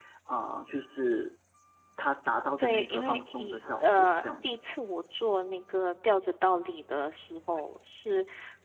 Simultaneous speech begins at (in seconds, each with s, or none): 2.6 s